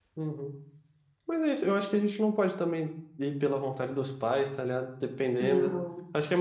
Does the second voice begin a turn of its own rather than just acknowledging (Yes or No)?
No